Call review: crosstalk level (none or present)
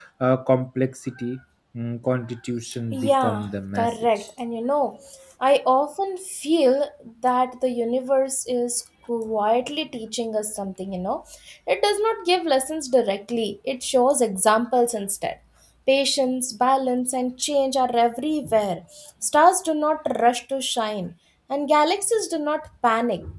present